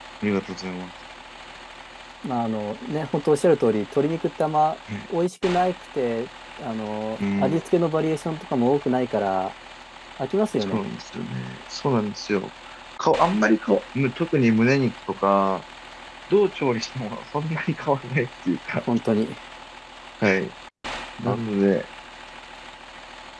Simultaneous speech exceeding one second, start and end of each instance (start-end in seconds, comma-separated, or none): none